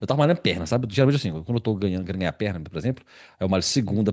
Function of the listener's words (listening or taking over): listening